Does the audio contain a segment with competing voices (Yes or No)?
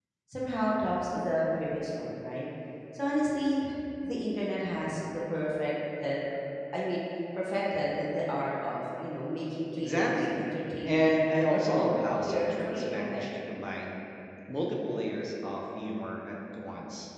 Yes